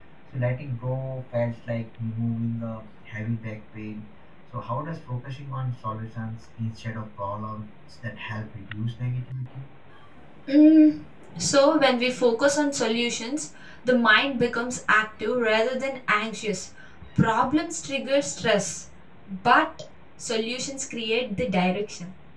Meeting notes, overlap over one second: none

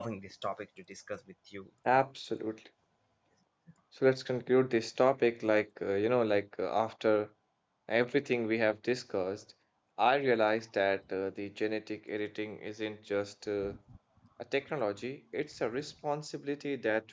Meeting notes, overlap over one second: none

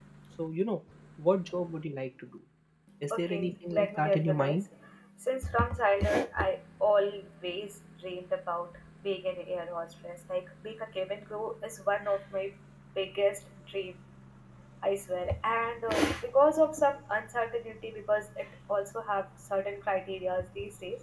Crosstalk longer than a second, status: present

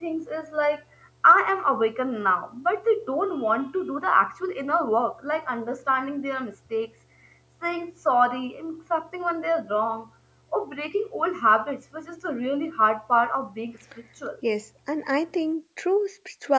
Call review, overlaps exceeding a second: none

